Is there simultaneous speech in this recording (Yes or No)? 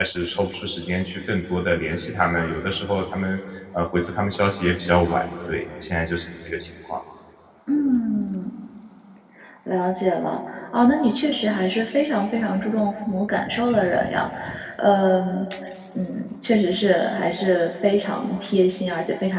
No